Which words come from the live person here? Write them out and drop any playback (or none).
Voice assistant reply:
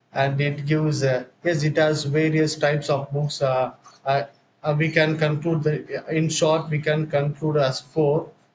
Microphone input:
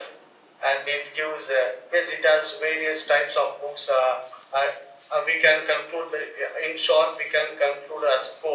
none